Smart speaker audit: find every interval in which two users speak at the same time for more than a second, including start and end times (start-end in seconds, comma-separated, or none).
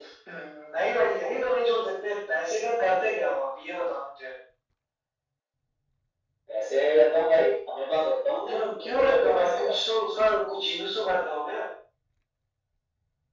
8.5-9.7